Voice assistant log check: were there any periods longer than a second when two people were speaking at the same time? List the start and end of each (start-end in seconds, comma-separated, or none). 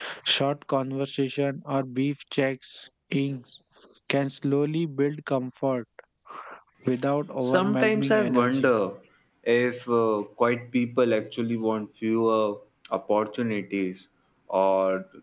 7.4-8.7